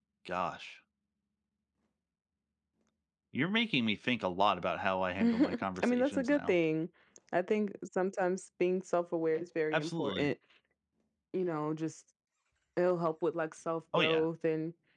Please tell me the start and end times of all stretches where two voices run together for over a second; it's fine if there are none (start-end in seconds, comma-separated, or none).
5.2-6.5